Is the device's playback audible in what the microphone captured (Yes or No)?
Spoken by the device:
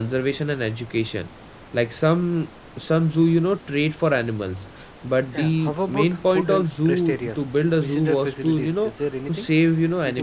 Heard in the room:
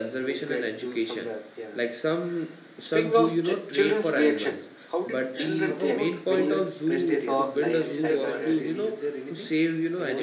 Yes